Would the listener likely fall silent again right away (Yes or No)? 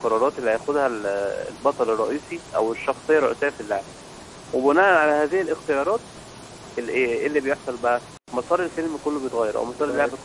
Yes